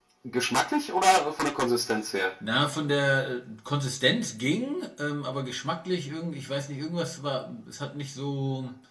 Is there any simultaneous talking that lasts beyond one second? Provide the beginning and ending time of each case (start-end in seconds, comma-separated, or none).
none